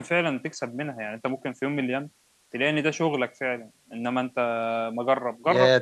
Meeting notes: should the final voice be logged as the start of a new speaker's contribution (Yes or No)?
Yes